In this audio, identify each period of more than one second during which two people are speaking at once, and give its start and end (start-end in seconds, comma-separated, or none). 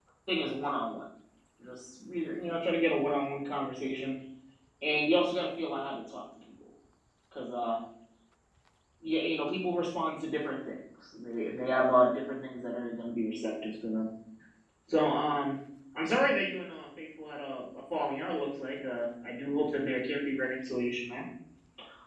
none